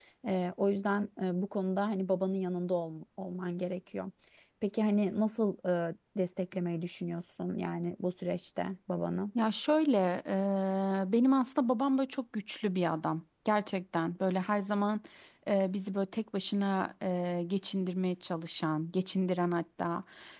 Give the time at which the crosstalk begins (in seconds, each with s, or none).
none